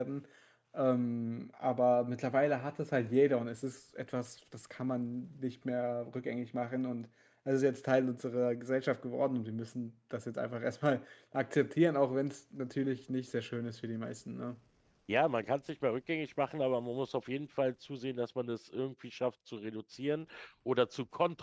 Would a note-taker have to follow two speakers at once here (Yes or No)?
No